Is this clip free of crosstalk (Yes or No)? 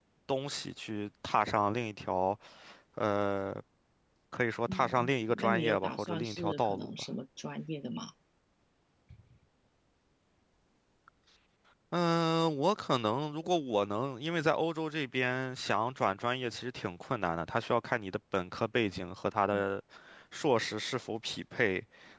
No